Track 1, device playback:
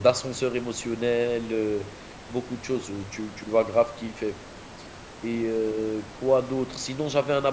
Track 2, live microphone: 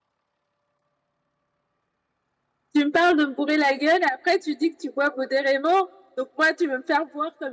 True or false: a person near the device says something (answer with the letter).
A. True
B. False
A